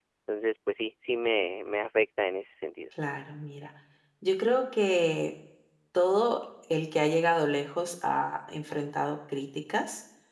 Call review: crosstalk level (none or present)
none